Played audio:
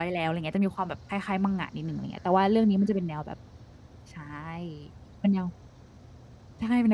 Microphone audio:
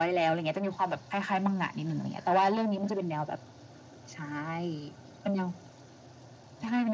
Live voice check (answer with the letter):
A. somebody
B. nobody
B